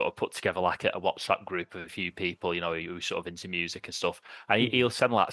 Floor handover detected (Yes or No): No